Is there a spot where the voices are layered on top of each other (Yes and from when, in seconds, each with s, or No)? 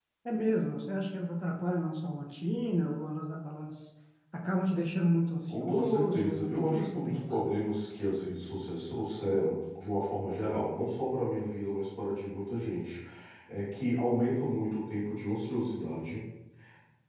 Yes, from 5.5 s